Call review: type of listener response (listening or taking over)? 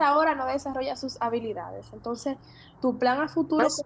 listening